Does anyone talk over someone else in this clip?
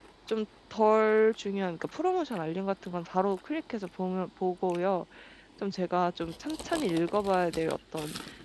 No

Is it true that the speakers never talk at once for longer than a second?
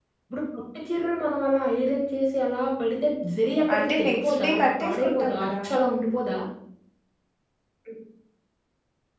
No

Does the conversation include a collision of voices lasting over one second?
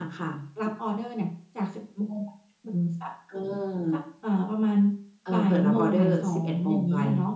Yes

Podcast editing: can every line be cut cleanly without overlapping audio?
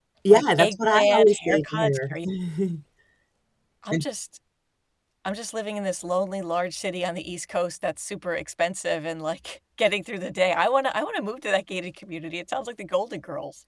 No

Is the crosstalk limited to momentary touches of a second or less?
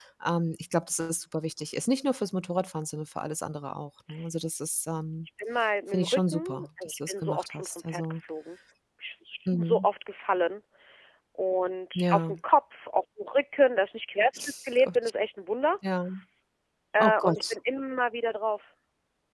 No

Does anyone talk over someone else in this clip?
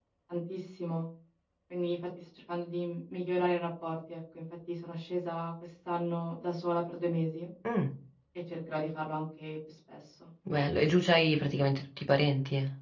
No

